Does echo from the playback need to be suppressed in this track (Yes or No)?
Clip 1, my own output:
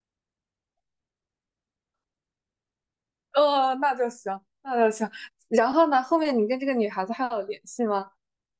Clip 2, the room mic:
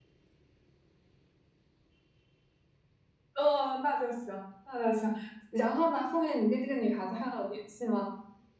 Yes